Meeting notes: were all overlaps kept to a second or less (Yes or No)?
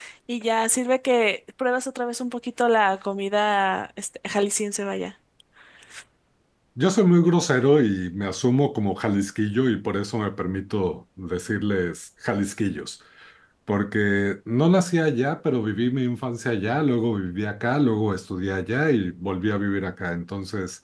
Yes